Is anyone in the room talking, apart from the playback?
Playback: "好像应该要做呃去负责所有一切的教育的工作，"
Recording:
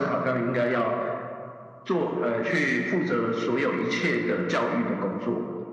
No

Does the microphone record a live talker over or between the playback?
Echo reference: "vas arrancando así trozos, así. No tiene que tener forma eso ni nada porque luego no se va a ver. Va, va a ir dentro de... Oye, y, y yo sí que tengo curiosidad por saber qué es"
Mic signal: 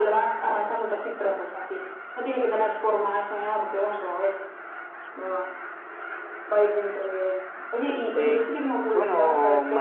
Yes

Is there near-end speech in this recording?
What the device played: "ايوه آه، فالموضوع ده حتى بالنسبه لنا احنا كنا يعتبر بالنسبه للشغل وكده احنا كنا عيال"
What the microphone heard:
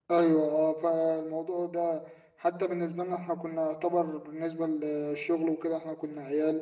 No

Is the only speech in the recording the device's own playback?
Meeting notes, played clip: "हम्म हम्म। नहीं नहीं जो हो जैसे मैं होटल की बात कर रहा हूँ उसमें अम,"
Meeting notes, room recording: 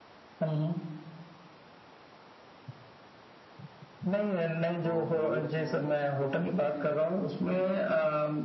No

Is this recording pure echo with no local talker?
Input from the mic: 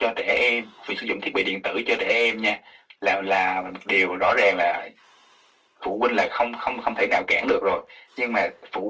Yes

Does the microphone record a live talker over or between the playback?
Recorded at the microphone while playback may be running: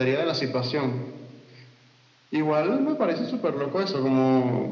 No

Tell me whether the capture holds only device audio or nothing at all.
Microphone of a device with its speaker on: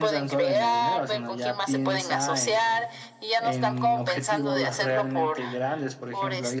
No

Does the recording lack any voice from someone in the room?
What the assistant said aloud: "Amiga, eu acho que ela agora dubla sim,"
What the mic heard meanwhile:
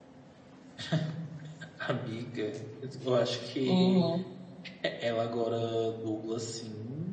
No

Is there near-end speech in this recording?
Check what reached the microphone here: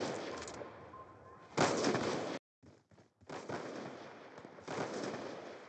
No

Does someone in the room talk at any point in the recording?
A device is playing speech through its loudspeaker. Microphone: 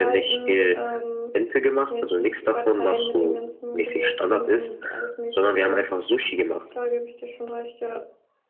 Yes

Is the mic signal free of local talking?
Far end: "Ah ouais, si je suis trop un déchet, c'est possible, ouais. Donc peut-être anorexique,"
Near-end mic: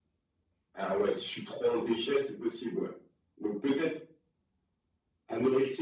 Yes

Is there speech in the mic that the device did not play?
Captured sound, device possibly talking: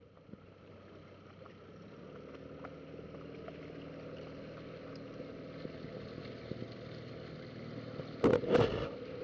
No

